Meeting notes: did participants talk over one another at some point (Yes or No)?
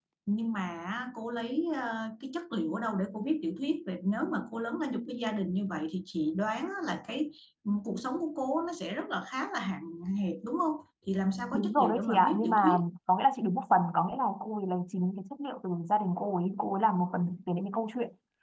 Yes